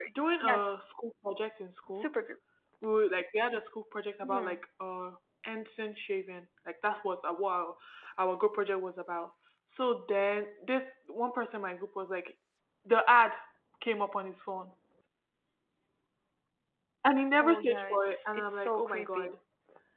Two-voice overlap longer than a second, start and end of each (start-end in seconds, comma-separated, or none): 17.4-19.3